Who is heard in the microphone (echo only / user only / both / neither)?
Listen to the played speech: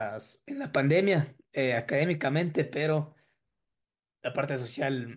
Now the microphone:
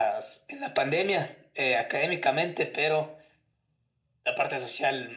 echo only